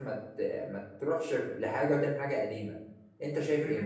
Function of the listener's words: taking over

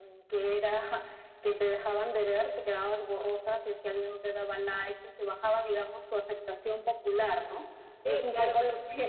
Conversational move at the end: listening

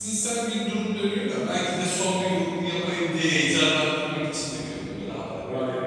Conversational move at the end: taking over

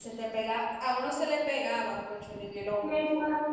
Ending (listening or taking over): taking over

